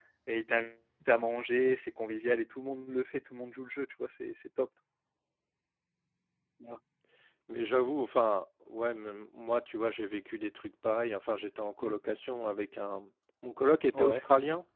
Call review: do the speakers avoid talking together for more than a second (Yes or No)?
Yes